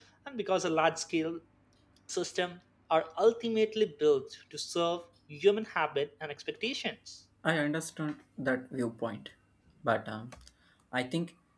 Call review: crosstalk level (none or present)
none